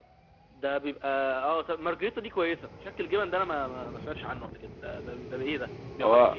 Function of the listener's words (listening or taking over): taking over